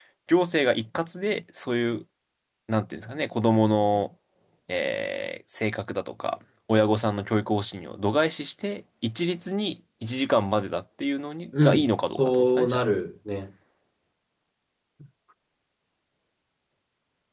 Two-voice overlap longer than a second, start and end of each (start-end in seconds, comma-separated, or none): 11.6-12.8